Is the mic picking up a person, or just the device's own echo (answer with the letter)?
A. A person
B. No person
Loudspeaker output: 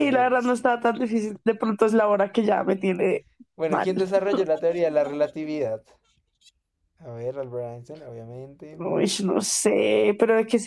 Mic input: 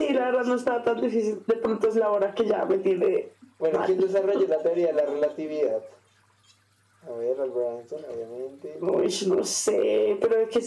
B